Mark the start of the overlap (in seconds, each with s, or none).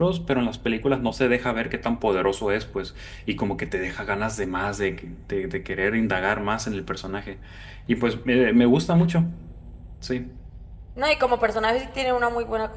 none